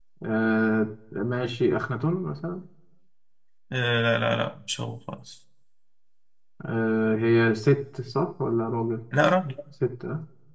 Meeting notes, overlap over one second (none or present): none